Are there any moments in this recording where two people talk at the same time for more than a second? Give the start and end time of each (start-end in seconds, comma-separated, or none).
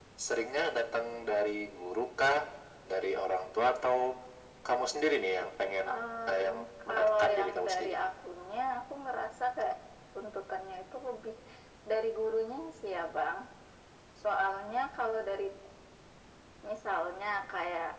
6.3-7.9